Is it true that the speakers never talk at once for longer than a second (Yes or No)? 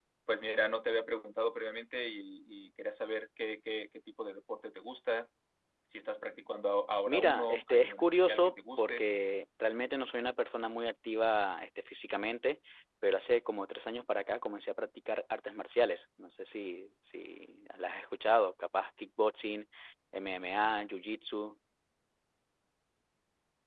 No